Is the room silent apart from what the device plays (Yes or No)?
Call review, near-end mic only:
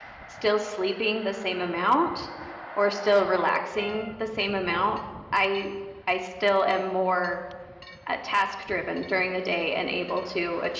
No